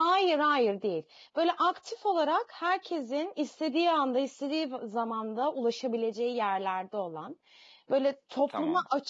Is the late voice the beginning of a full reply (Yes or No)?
No